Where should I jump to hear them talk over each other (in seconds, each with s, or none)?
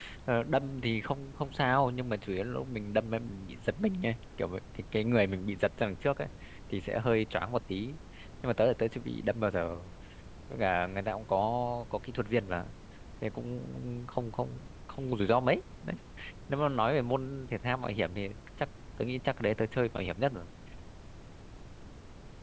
none